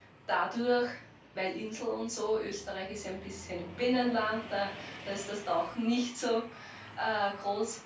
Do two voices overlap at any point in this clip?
No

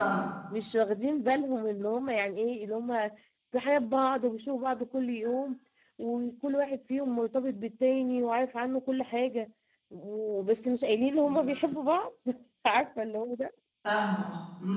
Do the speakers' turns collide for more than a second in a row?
No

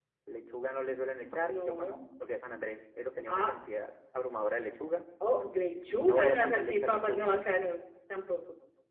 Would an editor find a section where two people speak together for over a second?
Yes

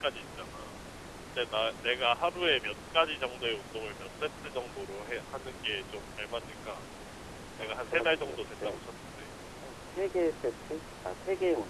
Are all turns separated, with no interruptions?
No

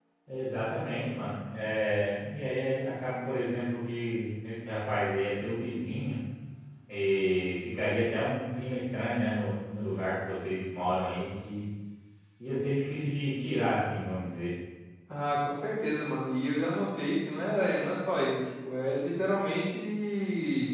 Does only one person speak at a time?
Yes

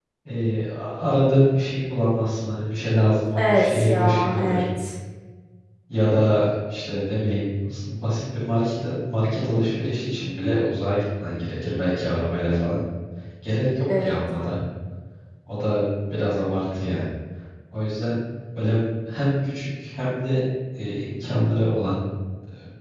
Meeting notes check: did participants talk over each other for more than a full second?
Yes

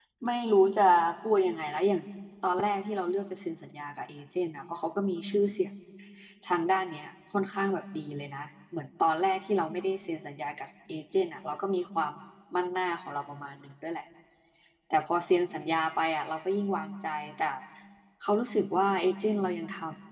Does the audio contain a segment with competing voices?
No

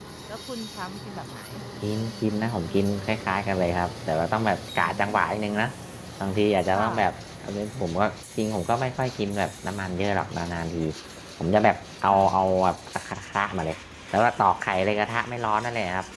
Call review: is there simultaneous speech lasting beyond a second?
No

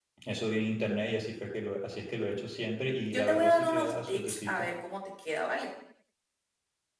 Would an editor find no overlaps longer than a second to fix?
No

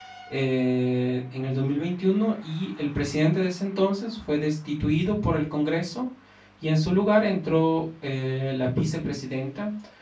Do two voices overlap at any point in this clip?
No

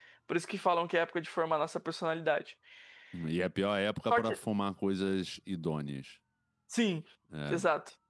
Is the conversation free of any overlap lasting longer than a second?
Yes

